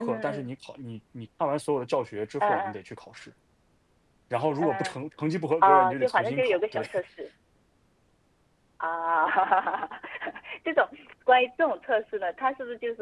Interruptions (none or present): present